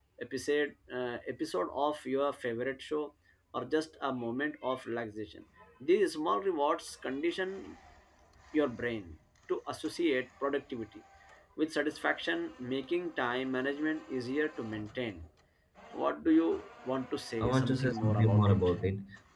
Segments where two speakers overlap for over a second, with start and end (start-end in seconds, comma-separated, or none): 17.4-18.6